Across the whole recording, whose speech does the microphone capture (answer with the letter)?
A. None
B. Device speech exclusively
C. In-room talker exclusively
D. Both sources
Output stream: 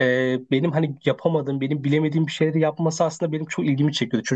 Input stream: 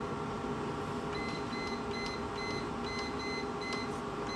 A